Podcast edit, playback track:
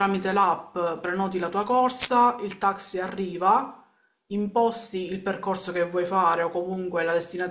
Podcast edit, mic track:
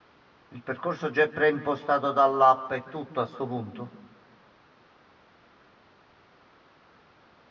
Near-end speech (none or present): present